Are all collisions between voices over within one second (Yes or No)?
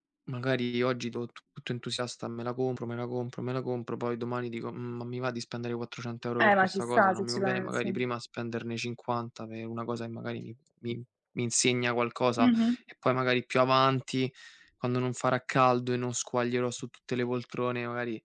No